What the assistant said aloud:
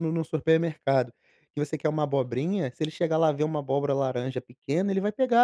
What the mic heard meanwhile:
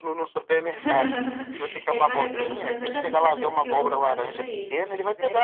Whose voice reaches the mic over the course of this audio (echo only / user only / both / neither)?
both